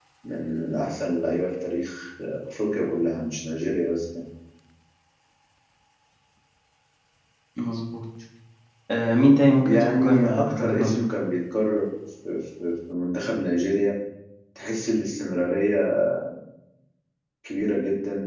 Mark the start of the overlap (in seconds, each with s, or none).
9.6 s